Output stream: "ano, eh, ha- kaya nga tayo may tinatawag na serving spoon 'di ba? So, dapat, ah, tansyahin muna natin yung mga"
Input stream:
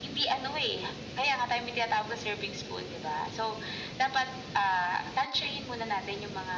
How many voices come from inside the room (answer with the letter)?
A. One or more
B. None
B